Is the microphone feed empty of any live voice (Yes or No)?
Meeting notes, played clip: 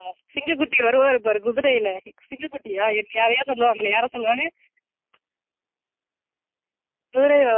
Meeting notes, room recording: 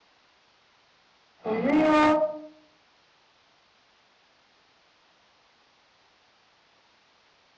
No